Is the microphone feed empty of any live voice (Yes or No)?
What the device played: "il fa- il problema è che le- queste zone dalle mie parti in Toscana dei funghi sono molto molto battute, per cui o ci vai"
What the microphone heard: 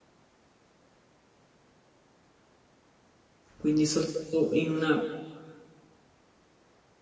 No